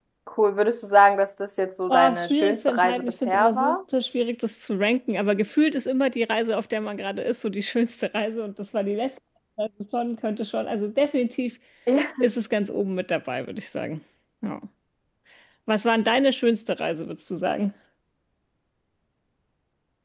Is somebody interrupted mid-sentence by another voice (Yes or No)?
Yes